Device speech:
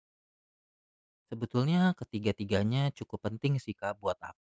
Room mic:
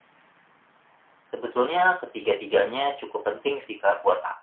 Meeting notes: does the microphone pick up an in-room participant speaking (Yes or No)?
No